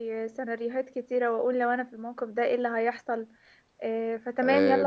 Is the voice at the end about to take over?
Yes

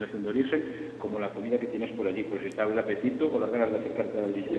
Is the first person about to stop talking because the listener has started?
Yes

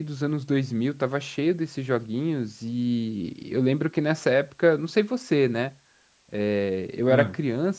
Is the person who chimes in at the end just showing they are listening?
Yes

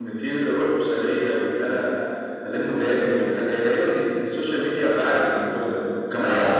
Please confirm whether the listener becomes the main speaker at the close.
No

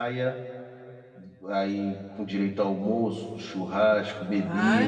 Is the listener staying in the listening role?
No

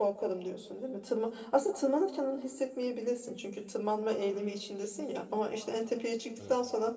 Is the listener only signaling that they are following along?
Yes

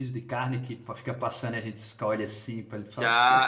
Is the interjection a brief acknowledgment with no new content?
No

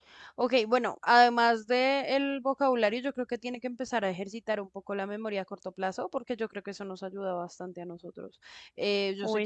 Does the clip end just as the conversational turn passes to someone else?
No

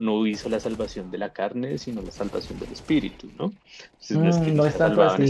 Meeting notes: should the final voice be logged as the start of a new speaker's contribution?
Yes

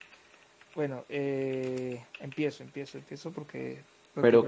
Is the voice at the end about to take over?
Yes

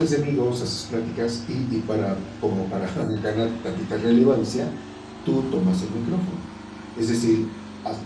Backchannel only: Yes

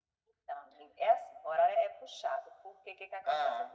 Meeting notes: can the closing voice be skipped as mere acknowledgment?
Yes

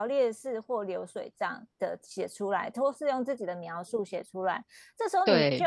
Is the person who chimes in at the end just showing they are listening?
Yes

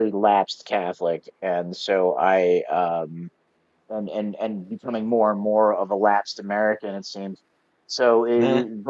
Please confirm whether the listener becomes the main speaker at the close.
No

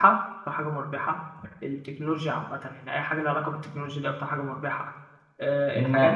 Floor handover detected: Yes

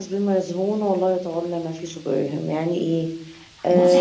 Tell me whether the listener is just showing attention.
No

